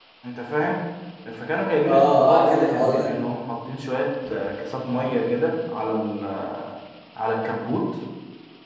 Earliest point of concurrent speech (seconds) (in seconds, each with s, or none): 1.9 s